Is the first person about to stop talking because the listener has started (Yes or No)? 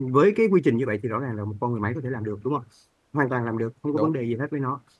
No